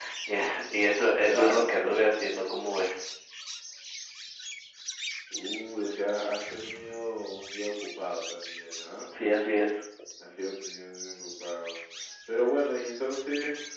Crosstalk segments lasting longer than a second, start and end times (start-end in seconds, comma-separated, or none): 1.2-2.5